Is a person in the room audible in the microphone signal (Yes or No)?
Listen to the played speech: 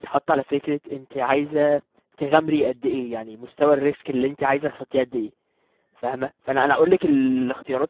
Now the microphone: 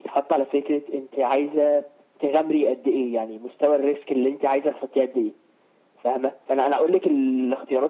No